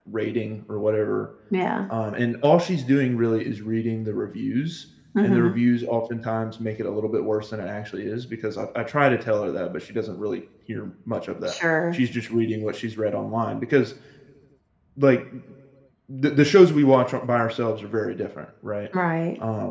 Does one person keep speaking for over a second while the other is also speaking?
No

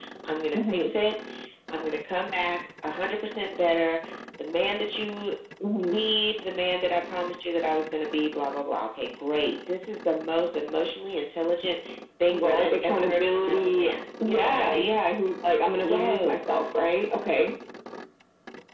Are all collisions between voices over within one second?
No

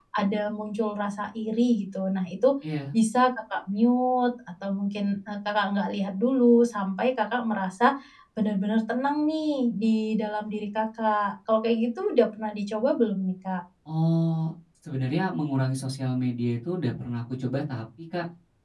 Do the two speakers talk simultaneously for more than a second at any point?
No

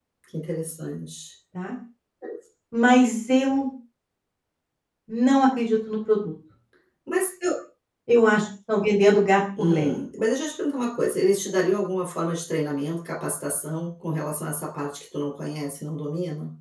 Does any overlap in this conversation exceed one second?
No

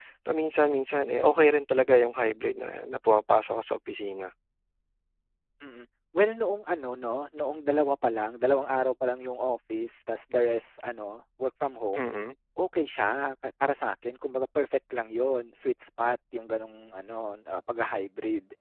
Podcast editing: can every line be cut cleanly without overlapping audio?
Yes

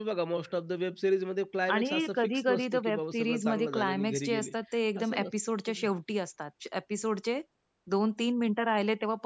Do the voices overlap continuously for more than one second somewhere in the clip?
Yes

